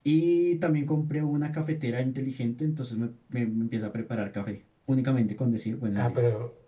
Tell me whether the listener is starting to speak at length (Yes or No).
Yes